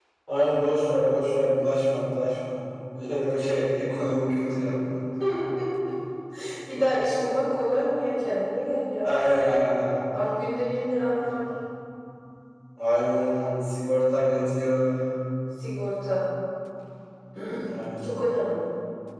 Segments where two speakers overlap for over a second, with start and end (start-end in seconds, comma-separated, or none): none